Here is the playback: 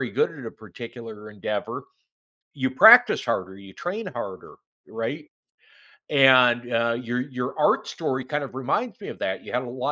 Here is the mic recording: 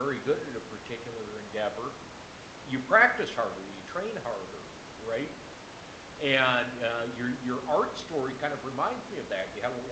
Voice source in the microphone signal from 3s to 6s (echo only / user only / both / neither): echo only